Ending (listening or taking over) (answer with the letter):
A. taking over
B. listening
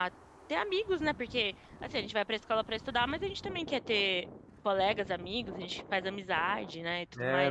A